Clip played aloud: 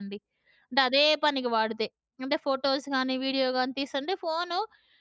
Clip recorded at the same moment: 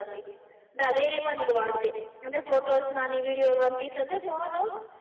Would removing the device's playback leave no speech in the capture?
Yes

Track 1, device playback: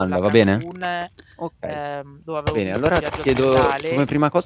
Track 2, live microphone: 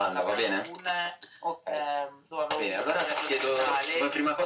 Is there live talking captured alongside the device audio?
No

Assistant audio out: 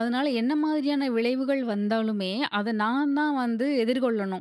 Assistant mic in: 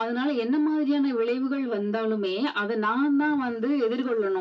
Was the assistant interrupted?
No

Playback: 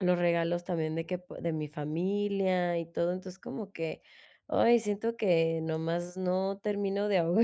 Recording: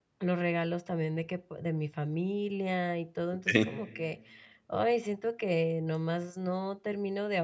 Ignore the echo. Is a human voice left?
Yes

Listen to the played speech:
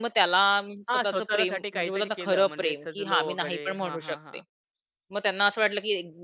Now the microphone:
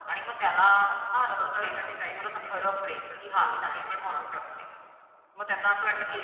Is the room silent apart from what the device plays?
Yes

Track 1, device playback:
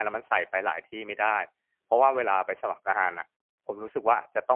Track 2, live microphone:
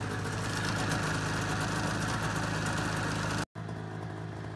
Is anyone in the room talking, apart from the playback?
No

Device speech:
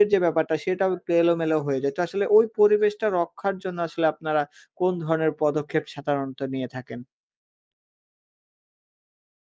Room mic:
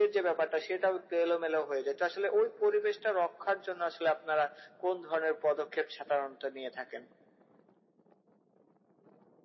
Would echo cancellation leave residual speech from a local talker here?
No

